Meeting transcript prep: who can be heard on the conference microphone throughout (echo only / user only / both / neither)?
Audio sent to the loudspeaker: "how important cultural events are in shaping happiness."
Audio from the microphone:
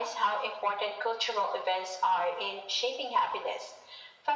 echo only